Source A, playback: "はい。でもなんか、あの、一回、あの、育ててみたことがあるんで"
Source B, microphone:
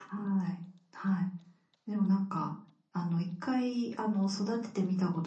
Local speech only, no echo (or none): none